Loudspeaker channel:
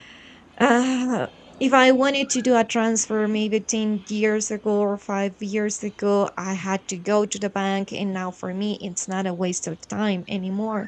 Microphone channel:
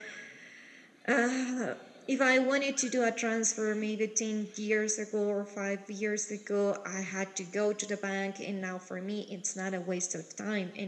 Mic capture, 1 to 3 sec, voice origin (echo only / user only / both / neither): echo only